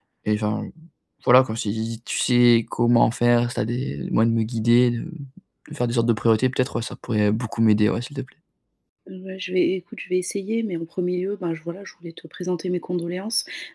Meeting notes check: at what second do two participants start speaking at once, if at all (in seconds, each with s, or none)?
none